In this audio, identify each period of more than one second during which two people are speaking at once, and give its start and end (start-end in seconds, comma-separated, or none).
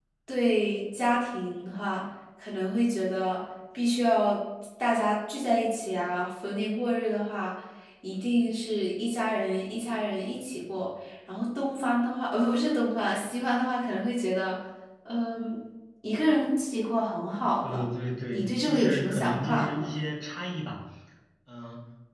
18.3-19.9